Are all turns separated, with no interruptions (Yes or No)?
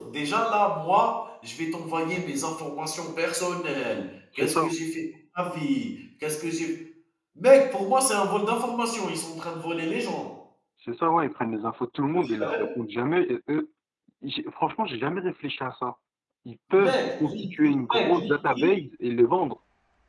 No